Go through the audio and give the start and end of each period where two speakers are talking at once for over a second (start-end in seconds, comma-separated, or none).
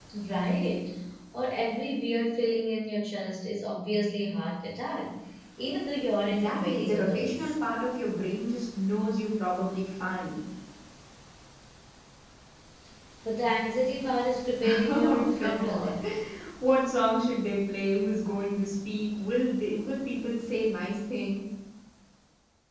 6.2-7.5, 14.6-15.9